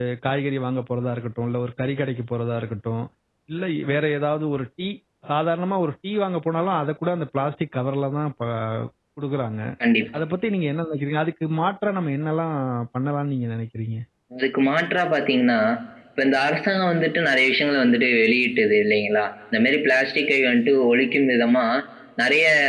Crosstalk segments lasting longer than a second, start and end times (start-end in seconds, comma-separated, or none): none